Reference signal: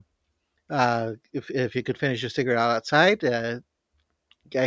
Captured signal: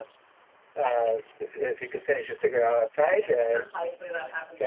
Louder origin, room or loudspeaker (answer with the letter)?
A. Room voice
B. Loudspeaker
B